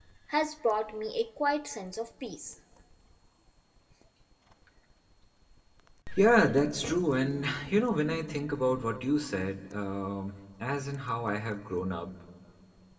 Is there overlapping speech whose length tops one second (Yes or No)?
No